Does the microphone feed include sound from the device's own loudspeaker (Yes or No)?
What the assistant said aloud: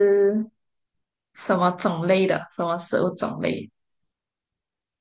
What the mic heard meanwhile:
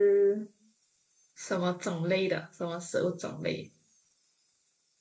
Yes